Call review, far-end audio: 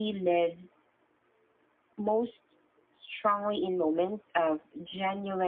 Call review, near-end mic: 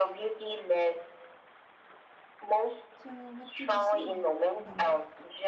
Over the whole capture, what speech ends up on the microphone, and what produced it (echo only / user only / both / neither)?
both